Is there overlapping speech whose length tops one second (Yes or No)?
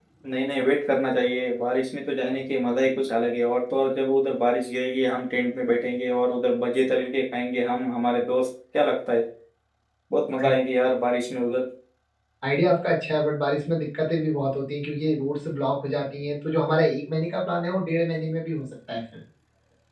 No